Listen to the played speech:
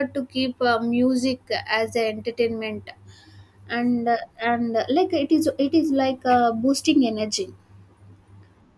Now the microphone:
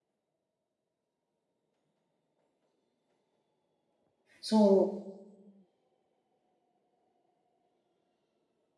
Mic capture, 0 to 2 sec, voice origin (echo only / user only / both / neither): neither